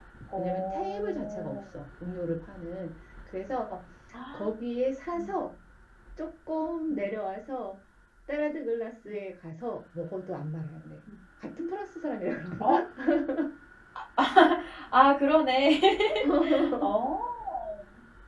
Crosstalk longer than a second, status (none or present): present